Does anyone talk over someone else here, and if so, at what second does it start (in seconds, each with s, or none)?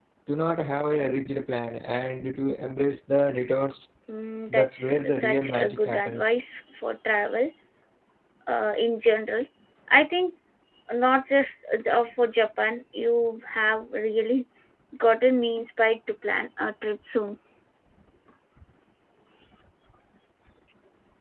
4.5 s